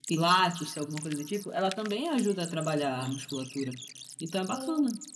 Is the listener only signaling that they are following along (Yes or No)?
No